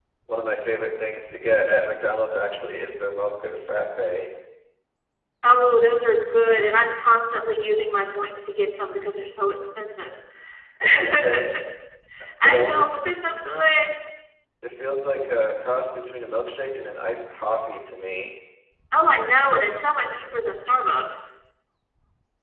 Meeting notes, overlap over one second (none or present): none